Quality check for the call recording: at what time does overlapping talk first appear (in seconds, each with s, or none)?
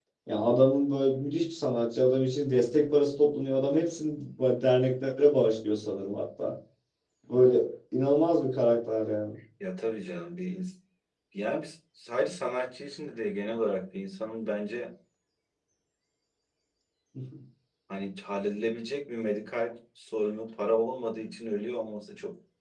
none